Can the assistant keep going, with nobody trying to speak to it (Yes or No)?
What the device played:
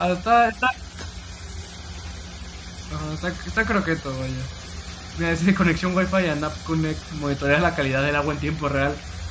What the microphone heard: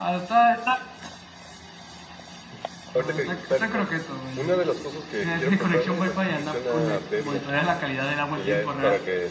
No